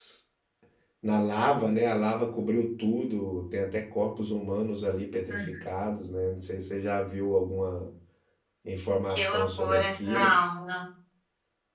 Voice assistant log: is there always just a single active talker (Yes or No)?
No